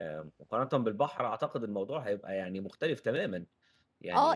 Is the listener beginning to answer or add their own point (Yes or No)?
Yes